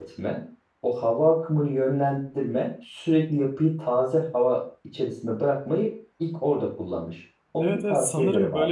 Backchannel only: No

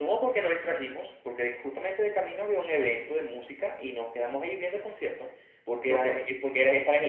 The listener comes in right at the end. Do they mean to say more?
No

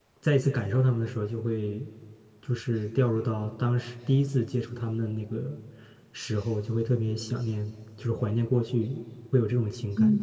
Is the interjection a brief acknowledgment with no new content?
No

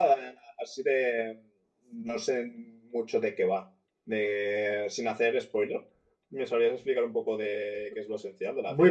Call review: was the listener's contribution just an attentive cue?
No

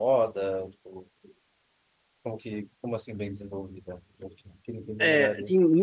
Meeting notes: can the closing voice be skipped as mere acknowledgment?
No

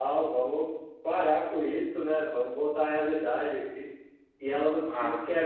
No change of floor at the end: Yes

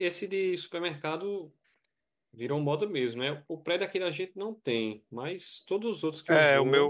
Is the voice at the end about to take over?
Yes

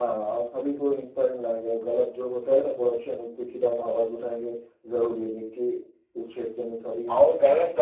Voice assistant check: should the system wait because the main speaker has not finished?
No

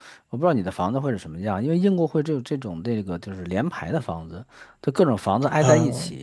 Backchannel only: Yes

